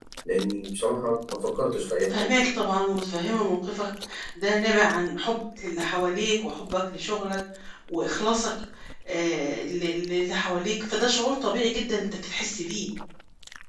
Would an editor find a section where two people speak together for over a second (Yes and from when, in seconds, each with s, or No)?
No